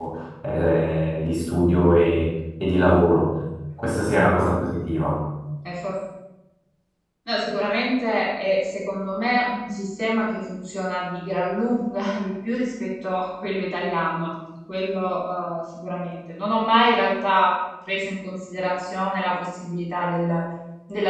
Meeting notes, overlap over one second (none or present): none